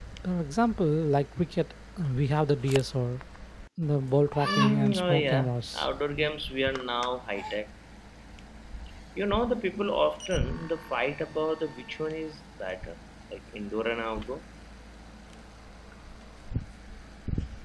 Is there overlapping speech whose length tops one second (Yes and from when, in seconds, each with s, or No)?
Yes, from 4.4 s